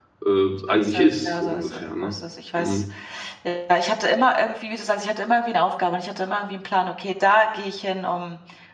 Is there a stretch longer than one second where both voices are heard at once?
Yes, from 0.7 s

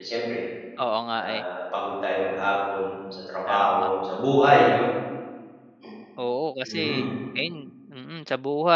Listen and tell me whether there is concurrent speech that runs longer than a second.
No

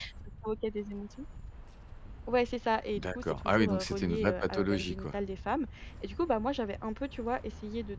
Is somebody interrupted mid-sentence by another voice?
Yes, from 2.9 s

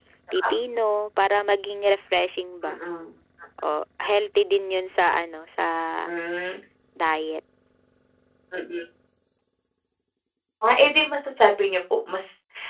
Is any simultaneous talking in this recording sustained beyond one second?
No

